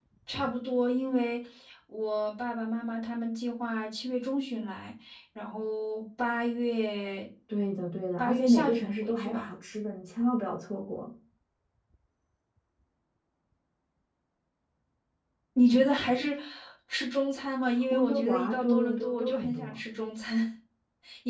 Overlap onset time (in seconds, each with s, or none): 8.2 s